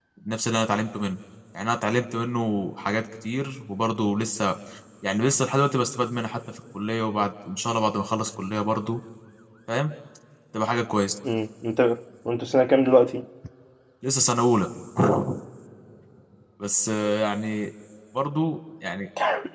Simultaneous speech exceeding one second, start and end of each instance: none

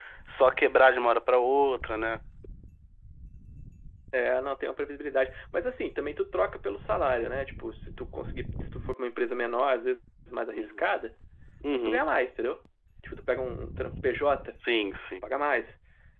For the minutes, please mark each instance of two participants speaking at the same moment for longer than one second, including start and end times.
none

